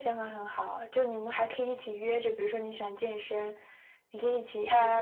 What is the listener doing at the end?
taking over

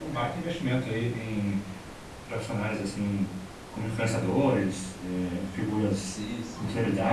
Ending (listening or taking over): taking over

